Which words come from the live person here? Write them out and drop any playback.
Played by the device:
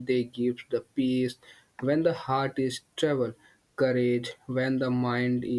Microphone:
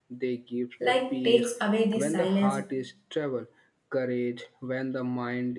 like takes away the silence,

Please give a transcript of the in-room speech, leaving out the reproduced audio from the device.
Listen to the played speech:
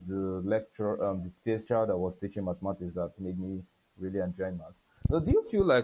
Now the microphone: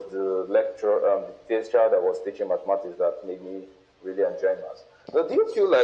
none

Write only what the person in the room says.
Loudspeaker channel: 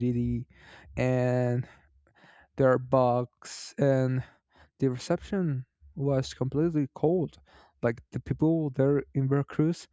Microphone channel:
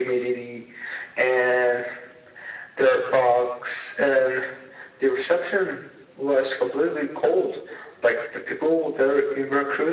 none

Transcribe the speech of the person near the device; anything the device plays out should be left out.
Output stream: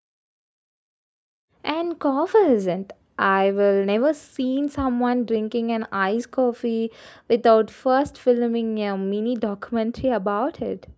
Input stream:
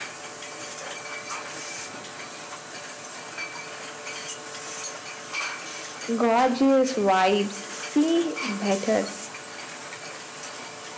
gorgeous vibes. See better.

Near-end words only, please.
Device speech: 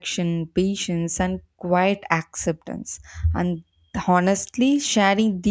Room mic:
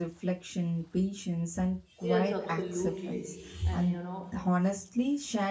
Yes, absolutely. And you know,

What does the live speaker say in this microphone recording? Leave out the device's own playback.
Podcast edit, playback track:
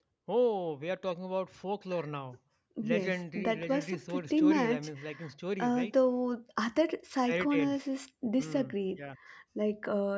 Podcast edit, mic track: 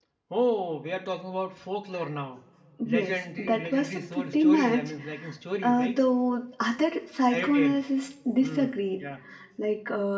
none

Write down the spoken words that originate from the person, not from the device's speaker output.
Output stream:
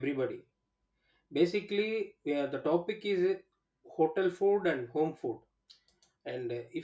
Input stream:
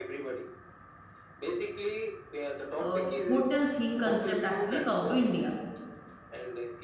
uh, hotel theme concept actually come to India.

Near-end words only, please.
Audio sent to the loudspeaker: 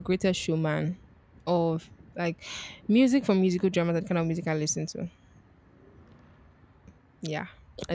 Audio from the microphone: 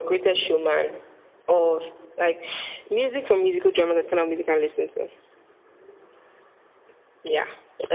none

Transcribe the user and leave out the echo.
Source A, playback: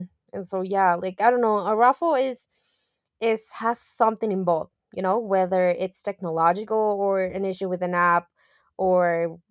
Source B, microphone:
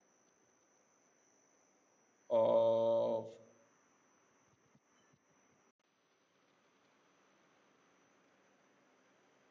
of

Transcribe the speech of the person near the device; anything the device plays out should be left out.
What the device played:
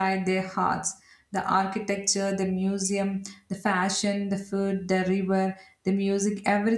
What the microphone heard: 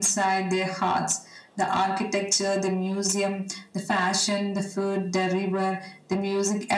none

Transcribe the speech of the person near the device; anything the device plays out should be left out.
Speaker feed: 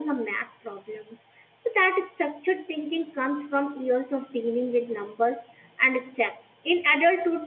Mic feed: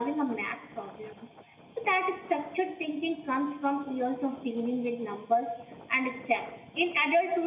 none

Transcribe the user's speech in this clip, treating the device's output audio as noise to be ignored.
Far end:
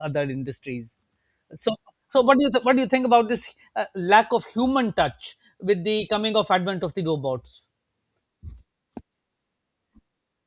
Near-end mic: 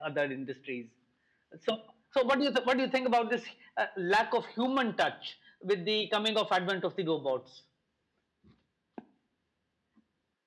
none

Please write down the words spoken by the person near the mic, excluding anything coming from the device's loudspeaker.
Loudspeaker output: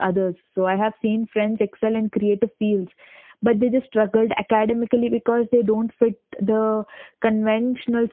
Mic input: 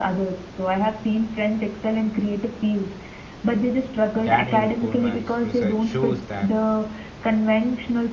Daniel Kahneman's research shows that

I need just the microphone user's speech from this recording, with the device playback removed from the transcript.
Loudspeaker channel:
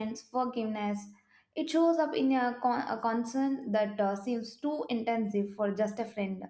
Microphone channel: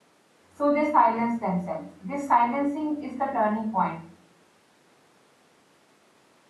So they silence themselves. This silencing is the turning point.

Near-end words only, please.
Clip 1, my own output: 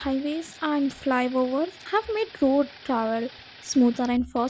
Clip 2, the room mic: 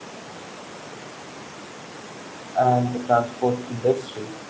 and the transport industry.

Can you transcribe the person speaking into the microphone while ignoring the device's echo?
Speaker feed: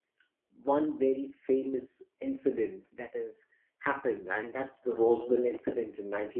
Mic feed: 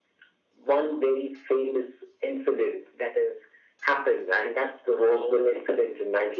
none

